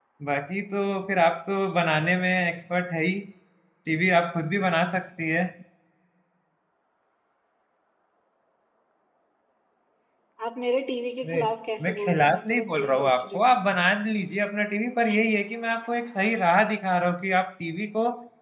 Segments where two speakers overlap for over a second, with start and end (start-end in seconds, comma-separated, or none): 11.9-13.5